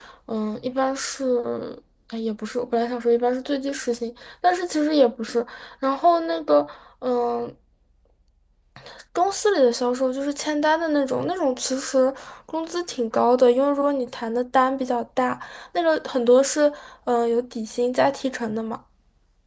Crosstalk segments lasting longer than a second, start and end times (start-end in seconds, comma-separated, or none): none